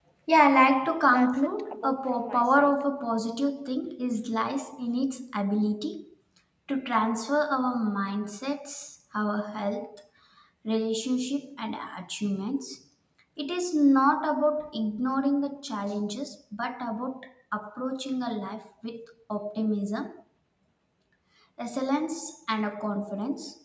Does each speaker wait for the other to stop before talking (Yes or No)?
No